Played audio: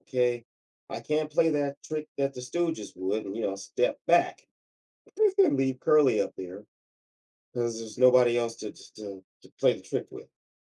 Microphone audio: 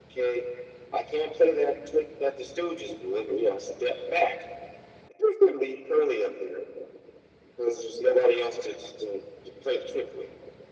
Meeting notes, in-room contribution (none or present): none